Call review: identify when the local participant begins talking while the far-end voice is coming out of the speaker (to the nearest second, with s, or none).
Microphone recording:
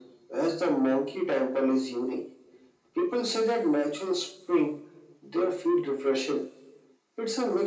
none